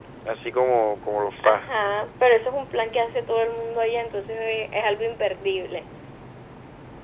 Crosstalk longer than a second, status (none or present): none